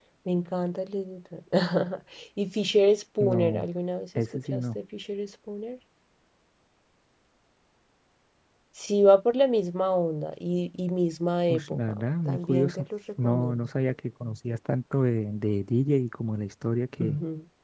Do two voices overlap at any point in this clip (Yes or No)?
Yes